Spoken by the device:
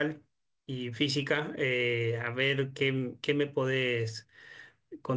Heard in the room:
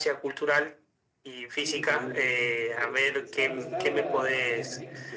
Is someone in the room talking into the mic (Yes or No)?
Yes